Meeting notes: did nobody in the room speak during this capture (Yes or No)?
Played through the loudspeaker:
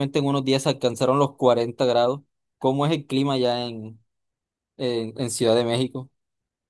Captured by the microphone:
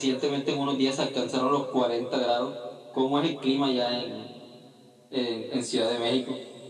Yes